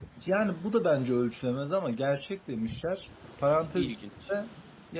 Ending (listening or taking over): listening